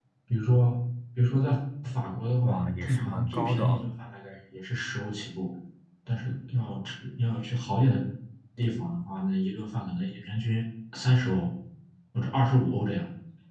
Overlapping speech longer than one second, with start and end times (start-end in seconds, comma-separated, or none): 2.4-3.9